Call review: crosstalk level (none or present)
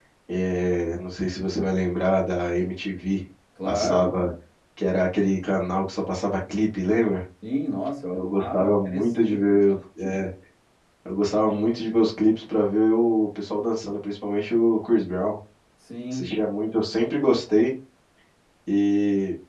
present